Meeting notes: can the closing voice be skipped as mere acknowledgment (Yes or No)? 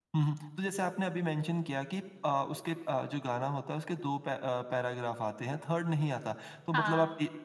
Yes